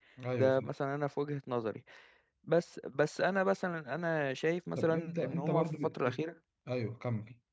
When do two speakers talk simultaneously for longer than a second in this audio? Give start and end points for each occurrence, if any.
4.8-6.2

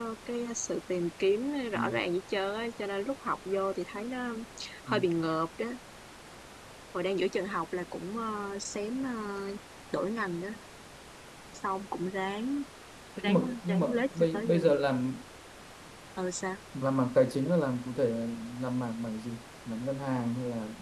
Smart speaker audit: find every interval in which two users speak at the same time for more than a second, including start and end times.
13.2-14.7

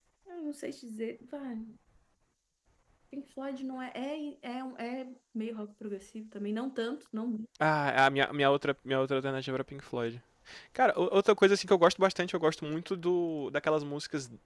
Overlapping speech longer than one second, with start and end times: none

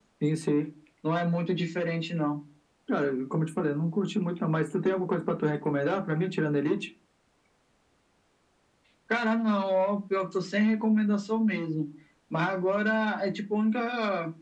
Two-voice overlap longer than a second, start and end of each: none

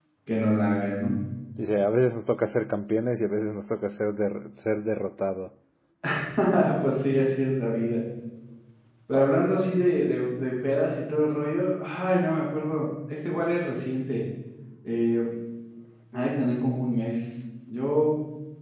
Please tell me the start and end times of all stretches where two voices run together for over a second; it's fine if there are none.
none

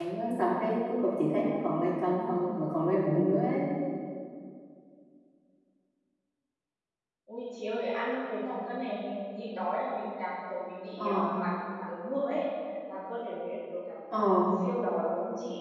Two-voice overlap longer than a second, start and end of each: none

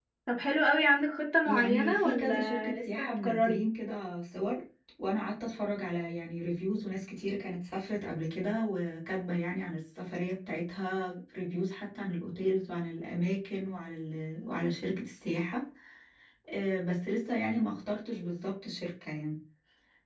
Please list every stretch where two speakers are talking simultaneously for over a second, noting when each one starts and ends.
1.4-3.6

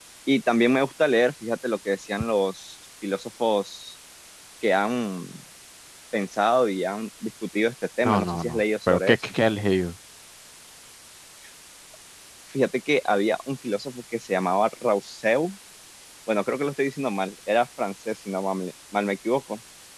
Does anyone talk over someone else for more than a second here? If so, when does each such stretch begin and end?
8.0-9.3

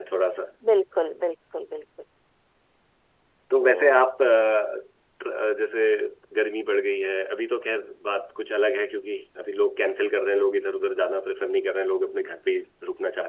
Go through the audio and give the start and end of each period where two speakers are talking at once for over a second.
none

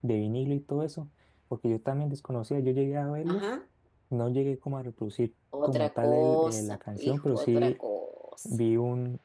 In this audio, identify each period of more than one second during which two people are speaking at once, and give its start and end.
5.6-7.7

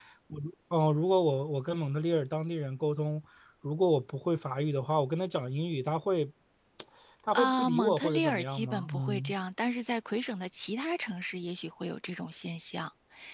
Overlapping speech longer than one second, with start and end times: 7.3-9.3

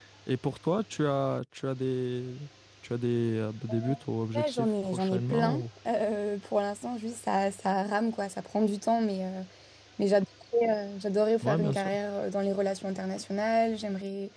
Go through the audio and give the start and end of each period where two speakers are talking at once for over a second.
4.3-5.6

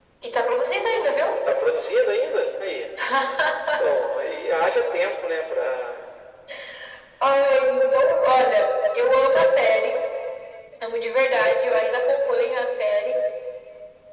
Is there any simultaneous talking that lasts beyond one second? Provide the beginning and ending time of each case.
none

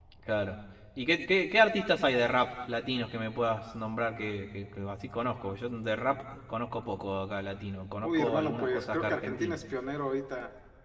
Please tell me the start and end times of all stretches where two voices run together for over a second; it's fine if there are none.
8.0-9.6

